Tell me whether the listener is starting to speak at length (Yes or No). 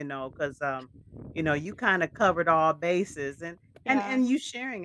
No